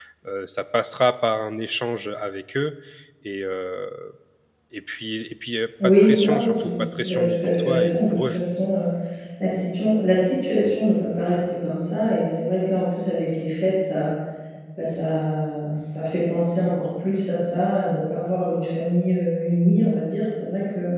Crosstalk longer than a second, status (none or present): present